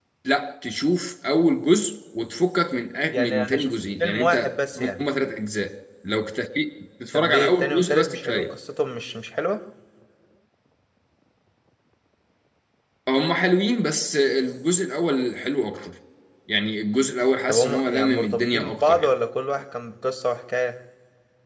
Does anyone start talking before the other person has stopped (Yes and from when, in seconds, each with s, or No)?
Yes, from 3.1 s